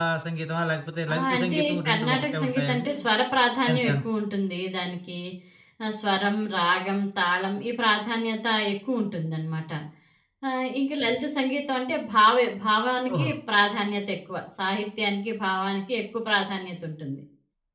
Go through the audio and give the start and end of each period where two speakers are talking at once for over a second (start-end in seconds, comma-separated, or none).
1.1-3.0